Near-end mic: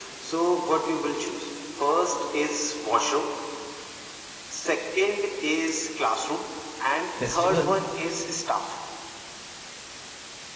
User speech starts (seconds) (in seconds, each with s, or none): 7.2 s